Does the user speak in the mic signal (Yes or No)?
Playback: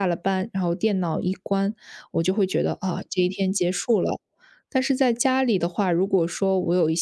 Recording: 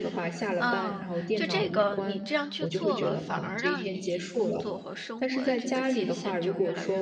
Yes